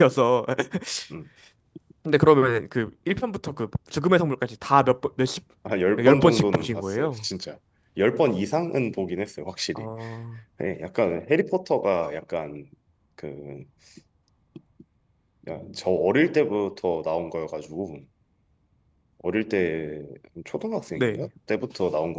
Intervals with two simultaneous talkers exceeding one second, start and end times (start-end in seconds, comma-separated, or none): 6.0-7.2